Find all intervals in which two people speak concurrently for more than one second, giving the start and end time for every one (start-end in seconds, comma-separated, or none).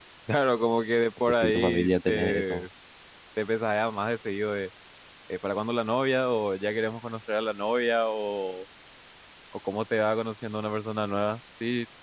1.3-2.6